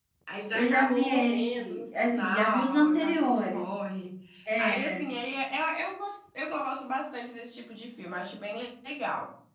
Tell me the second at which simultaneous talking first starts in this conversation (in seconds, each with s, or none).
0.5 s